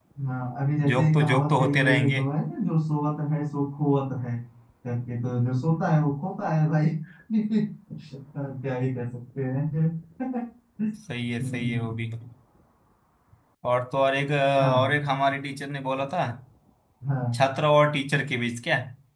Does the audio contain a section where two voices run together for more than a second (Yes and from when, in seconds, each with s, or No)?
Yes, from 0.9 s